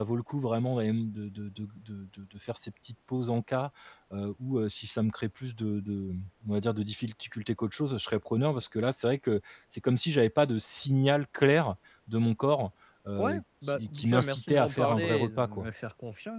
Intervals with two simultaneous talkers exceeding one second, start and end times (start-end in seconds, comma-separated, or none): 13.2-15.7